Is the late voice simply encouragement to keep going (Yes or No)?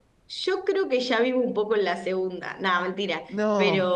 Yes